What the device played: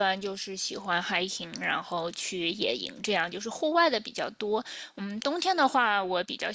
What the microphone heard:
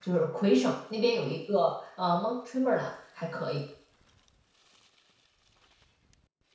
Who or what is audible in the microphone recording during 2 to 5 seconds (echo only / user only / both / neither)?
user only